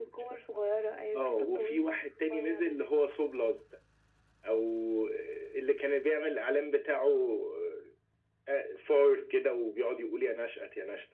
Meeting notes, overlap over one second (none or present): present